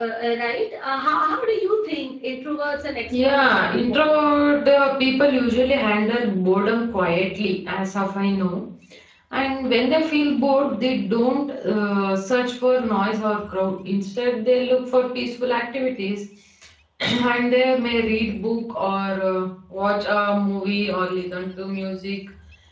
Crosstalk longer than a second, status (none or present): present